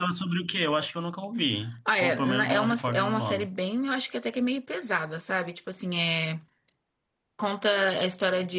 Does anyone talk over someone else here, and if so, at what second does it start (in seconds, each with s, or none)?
1.9 s